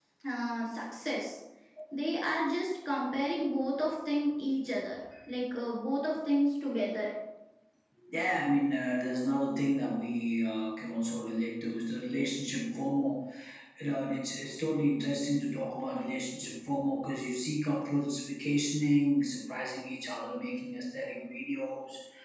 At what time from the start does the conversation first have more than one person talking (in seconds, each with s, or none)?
none